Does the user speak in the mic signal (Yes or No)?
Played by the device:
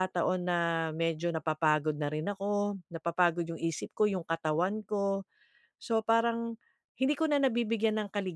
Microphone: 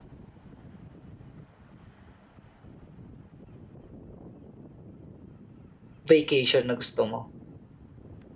Yes